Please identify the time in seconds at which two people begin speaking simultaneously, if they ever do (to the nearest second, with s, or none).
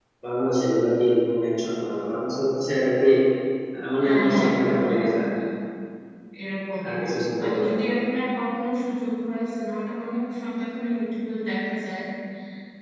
4 s